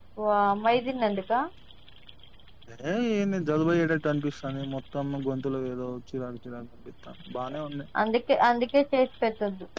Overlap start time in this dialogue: none

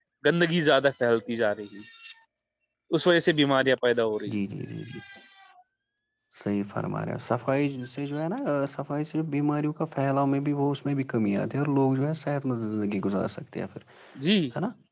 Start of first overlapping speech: none

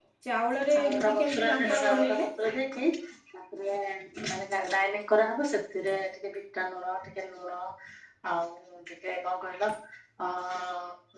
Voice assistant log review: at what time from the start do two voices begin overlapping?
0.7 s

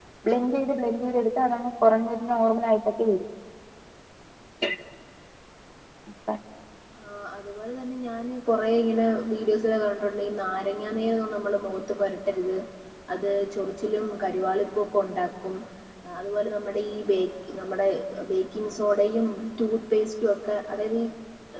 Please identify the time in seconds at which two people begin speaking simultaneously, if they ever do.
none

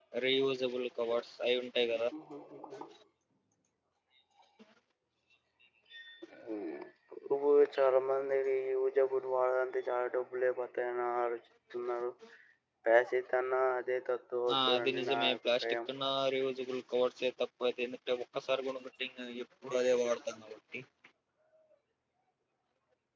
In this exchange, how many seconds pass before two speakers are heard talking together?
14.5 s

